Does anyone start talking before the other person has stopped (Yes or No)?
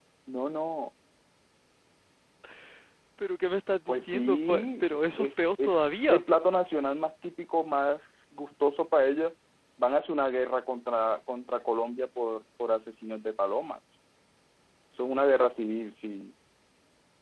Yes